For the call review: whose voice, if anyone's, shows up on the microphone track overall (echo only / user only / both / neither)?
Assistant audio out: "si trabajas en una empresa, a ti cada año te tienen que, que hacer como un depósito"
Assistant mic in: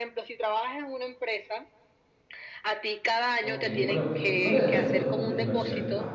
both